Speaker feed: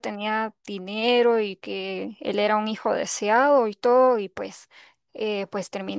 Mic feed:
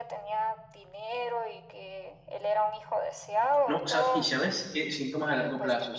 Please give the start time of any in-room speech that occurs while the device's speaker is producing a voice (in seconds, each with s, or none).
3.6 s